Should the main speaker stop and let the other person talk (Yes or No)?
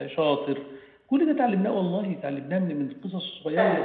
No